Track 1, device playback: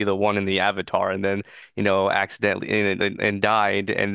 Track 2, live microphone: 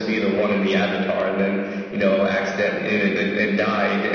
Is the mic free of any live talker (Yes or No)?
Yes